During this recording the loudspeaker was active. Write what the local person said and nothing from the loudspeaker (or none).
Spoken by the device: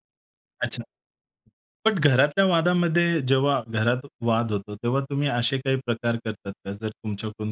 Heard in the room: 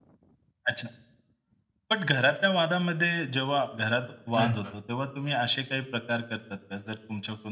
अच्छा.